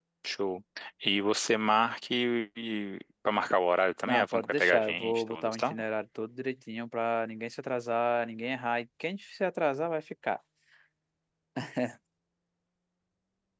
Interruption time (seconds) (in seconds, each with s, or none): 4.1 s